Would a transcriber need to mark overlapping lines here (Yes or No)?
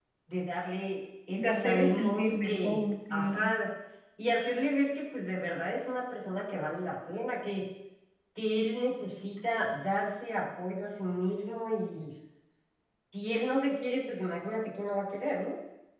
Yes